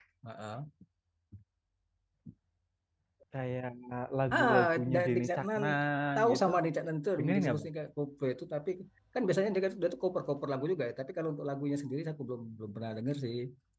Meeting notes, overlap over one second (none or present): present